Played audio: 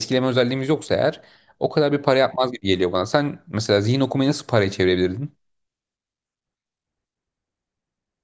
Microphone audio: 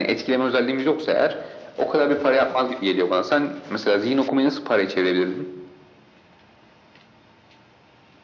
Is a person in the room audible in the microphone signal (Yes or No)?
No